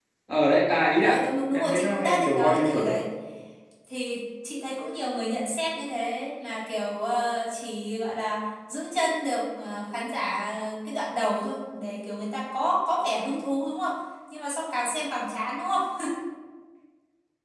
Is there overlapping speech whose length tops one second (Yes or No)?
Yes